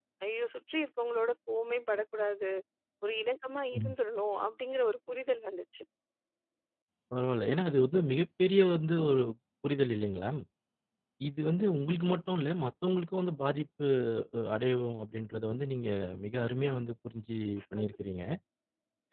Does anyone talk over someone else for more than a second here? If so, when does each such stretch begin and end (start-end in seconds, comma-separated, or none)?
none